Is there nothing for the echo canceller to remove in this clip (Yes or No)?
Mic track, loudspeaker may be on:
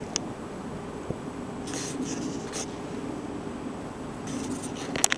Yes